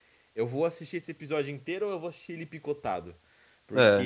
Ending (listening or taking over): listening